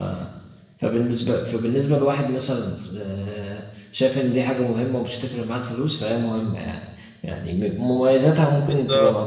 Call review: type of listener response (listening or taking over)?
listening